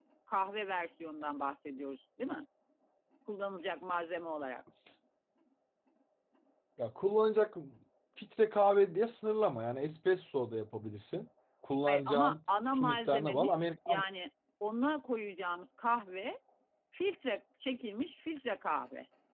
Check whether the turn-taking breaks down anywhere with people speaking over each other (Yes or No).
Yes